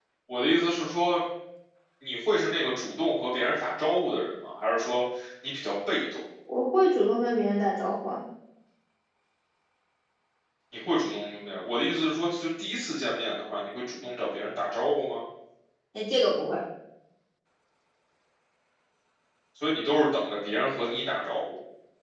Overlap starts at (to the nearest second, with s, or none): none